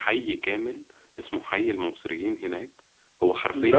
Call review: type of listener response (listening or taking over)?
listening